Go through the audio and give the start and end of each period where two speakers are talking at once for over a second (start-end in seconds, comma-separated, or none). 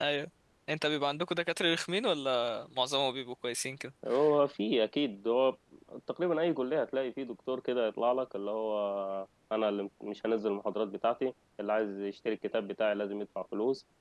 none